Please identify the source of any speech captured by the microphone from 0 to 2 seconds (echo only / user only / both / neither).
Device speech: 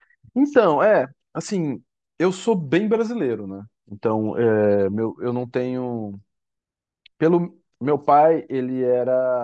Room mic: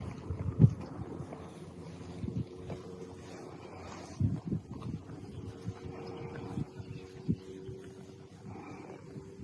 neither